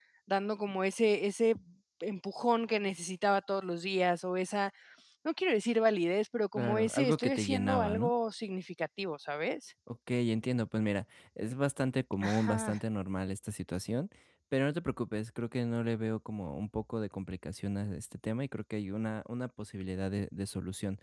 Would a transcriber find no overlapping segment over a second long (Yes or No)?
No